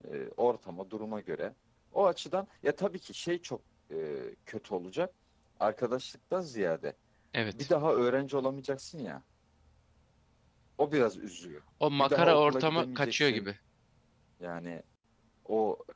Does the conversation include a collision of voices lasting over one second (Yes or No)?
Yes